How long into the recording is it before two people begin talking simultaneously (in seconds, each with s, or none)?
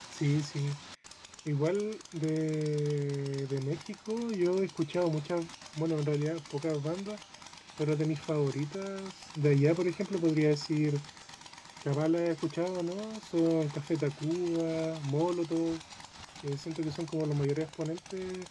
none